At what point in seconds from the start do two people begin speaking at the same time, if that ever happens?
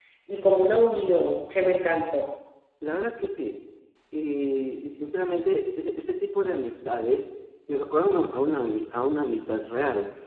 none

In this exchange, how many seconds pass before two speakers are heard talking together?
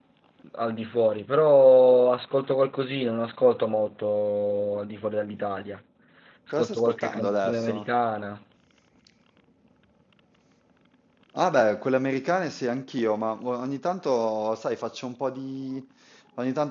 6.5 s

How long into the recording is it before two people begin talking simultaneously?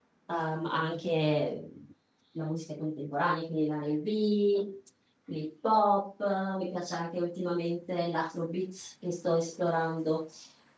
none

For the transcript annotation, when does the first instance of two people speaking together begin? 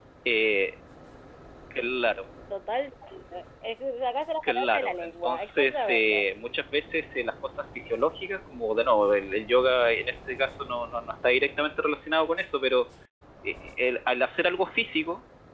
4.4 s

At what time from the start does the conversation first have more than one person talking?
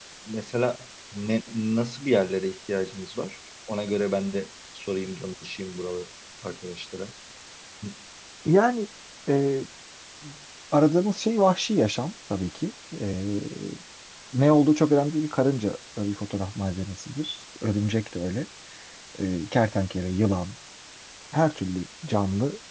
none

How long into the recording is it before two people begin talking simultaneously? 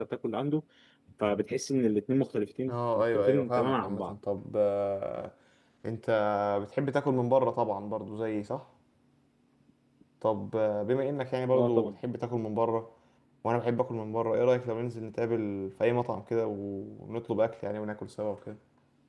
2.7 s

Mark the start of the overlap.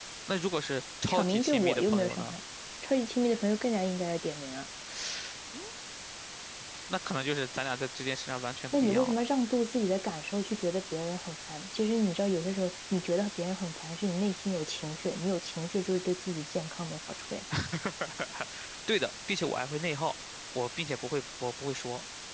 1.1 s

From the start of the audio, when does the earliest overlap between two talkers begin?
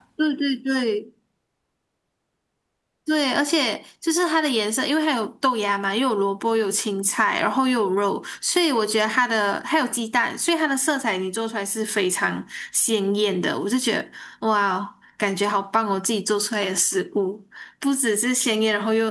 none

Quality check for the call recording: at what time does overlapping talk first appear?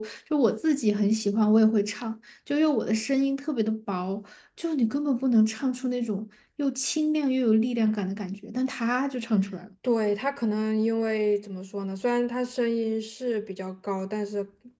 none

